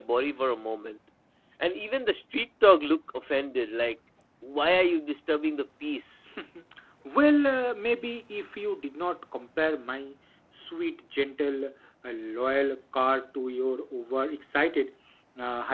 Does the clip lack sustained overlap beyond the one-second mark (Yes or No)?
Yes